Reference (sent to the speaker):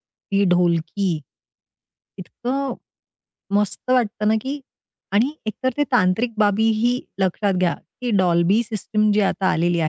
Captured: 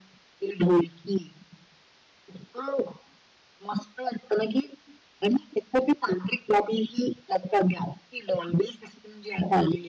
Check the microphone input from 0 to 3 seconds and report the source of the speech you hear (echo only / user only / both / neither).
echo only